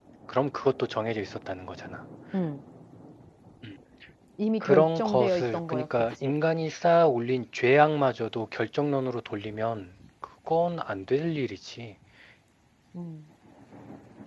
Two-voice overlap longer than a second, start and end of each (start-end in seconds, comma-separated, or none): 4.6-6.3